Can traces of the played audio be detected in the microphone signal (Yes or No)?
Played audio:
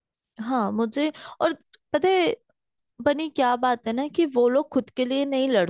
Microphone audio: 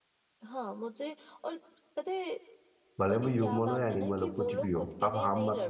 Yes